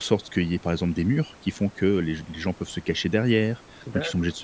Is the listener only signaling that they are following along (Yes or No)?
Yes